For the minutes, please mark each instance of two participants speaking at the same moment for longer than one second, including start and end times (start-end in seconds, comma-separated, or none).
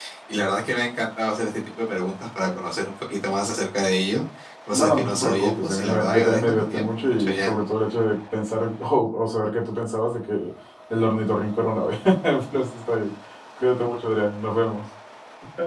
4.7-7.5